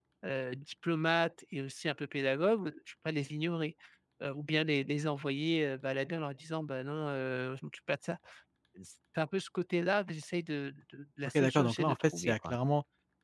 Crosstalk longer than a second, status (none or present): present